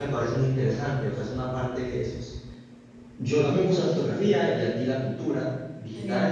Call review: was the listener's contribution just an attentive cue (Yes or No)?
Yes